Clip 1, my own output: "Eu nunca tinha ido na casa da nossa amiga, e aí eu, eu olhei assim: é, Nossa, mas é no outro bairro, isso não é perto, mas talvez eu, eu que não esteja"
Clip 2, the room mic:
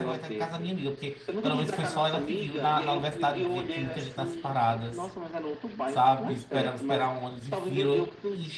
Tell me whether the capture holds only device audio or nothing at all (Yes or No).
No